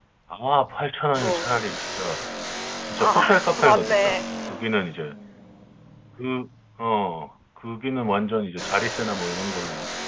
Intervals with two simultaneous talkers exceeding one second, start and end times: 3.0-4.2

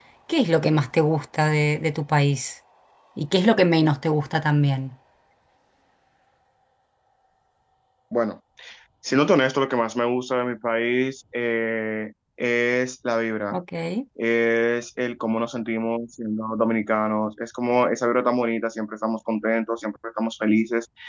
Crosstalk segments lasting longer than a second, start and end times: none

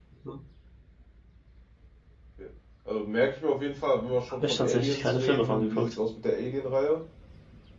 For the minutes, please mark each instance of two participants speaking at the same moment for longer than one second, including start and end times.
4.3-5.9

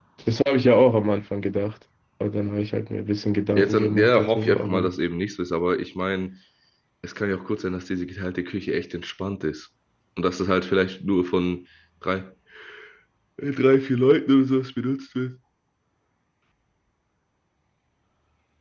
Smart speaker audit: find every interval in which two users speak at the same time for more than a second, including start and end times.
3.5-4.9

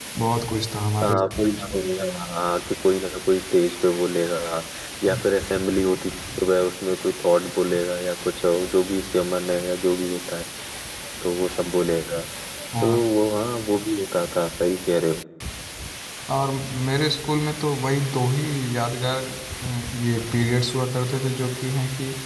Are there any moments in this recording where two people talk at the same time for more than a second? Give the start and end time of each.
none

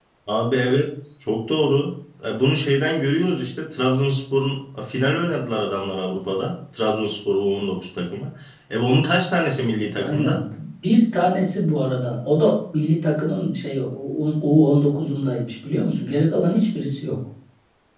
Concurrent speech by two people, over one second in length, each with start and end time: none

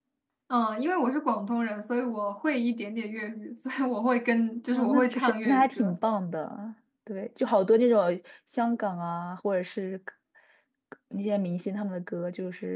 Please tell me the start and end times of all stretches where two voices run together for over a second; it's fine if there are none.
4.7-6.0

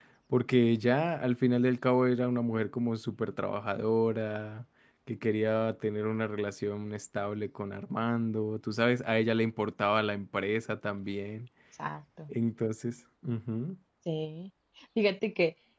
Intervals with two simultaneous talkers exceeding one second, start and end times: none

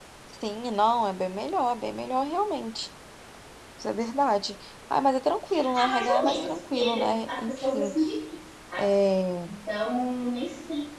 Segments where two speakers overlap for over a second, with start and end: 5.8-7.9

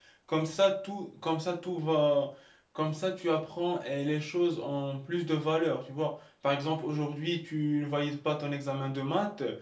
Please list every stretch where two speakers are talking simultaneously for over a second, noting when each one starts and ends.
none

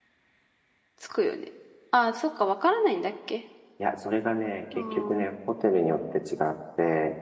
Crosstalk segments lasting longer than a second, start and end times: none

